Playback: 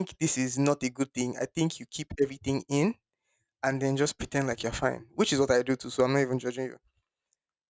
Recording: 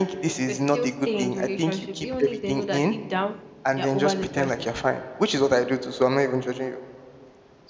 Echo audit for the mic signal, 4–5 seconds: both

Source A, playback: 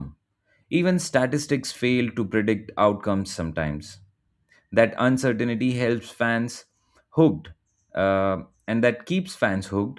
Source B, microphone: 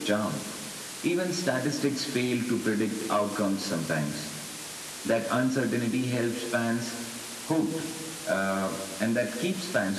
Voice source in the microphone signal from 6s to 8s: echo only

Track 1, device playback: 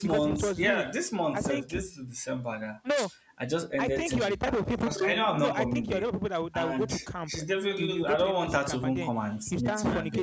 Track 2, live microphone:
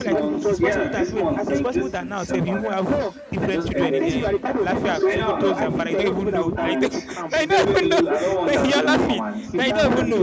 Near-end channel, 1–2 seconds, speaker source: both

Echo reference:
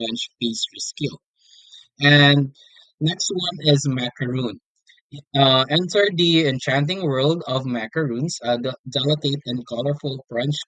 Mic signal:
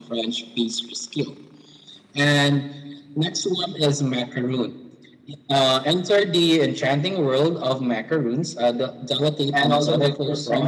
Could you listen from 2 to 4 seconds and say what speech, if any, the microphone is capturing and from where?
echo only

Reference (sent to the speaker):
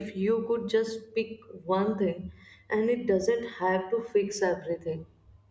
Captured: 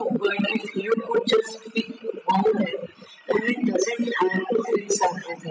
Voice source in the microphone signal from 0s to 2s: echo only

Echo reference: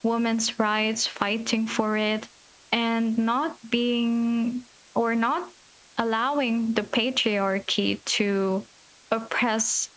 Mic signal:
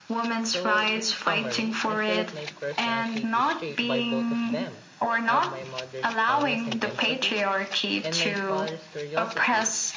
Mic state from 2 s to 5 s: both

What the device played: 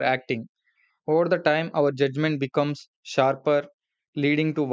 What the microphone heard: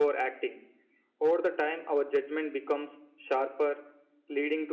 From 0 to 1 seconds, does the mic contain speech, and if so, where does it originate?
echo only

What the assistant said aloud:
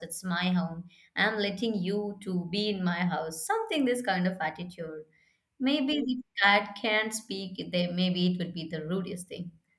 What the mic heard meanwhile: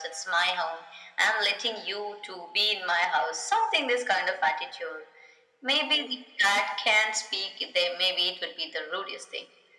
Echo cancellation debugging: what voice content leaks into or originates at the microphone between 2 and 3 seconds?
echo only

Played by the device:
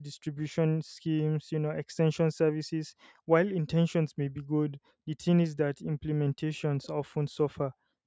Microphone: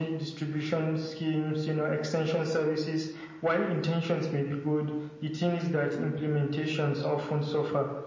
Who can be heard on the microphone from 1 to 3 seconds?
echo only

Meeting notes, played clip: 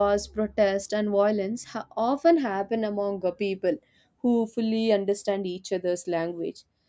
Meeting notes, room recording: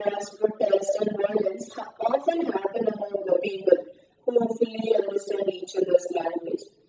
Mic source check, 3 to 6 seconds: echo only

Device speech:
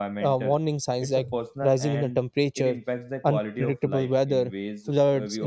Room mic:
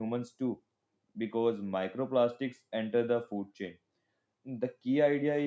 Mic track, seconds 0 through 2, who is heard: user only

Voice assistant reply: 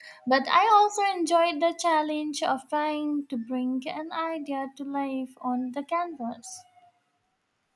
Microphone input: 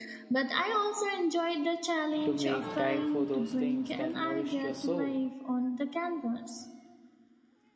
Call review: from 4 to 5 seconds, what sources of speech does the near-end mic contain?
both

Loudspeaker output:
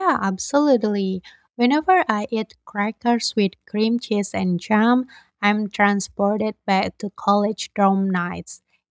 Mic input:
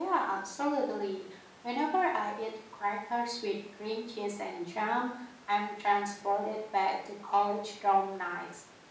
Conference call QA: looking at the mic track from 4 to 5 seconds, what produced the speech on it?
echo only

